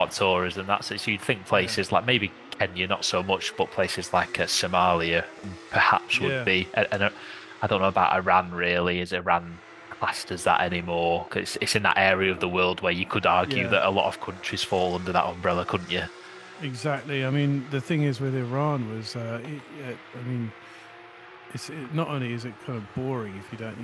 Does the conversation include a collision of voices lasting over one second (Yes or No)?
No